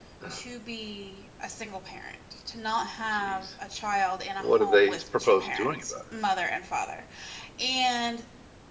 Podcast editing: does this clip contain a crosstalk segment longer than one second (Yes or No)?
Yes